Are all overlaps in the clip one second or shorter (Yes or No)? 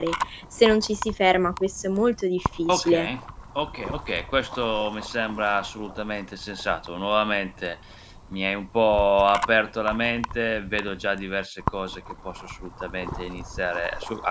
Yes